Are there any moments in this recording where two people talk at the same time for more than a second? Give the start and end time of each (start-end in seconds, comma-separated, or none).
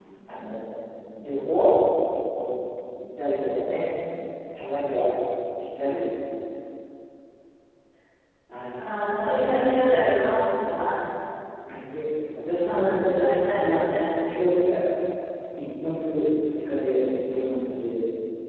12.6-13.9